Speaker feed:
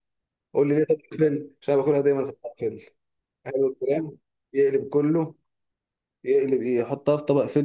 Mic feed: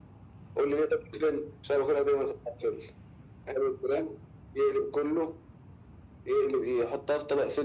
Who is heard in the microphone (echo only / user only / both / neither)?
echo only